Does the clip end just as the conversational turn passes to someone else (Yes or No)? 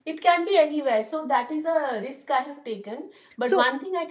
No